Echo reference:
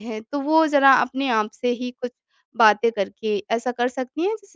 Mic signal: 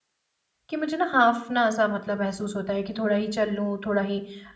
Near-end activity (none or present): present